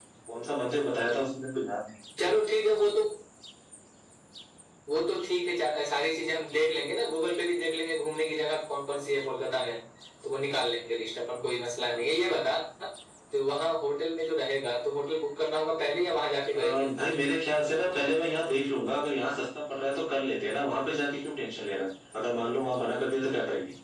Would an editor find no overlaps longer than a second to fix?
Yes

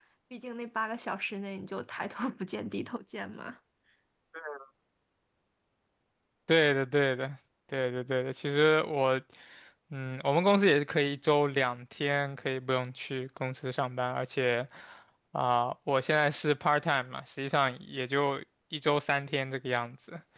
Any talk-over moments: No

